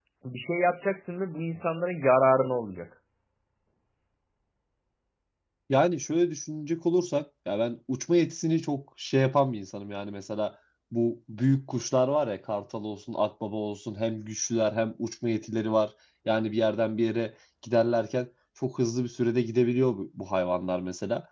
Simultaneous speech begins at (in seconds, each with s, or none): none